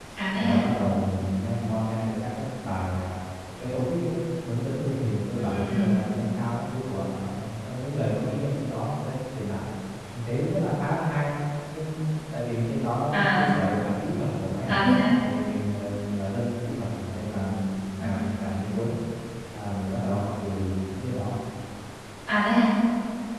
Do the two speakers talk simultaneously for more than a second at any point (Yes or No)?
No